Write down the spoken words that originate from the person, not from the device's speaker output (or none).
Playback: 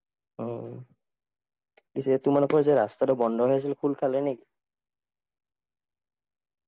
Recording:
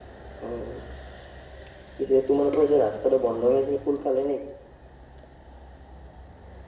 none